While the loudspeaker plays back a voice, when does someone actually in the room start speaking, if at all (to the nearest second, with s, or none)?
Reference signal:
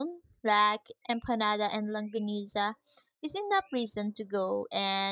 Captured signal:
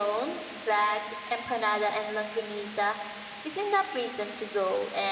none